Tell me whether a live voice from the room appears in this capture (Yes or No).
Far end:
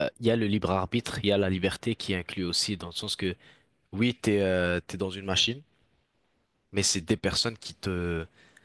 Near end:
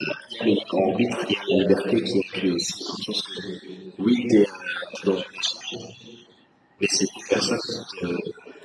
No